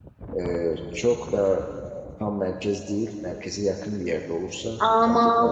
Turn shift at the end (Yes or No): Yes